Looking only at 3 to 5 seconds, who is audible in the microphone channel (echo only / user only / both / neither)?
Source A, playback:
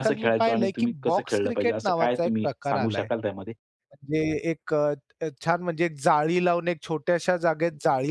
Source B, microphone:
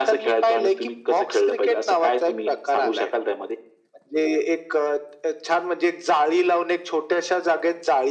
echo only